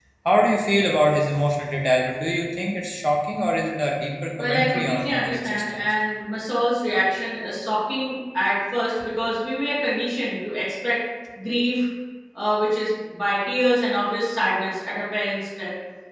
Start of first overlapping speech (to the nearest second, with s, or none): 4 s